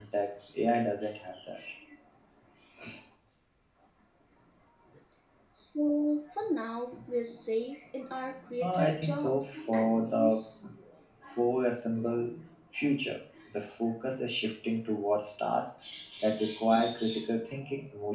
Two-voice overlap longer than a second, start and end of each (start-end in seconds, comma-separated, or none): 8.6-10.4